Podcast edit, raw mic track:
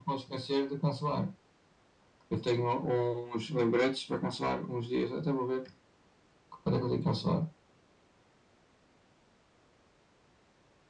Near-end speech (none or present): none